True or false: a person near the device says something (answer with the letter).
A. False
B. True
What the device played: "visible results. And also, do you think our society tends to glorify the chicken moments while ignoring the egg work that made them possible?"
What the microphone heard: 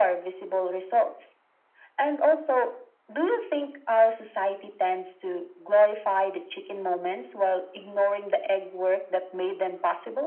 A